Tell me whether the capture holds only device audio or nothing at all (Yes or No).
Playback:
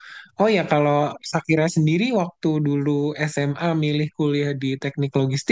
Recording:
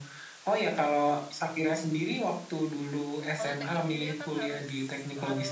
No